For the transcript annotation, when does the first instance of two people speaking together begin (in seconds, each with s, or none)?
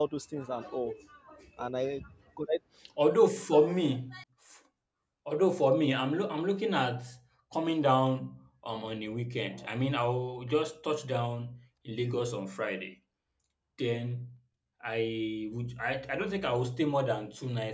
none